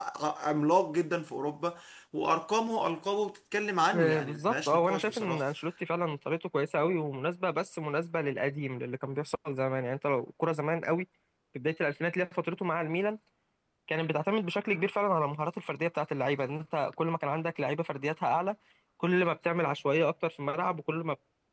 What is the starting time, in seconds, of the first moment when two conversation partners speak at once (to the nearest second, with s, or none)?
4 s